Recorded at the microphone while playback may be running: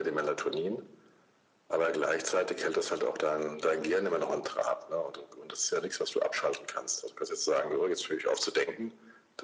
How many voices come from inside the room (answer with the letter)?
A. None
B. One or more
A